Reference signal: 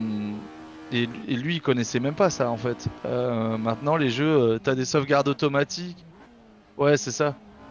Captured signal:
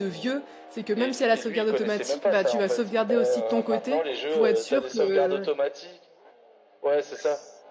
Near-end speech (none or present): present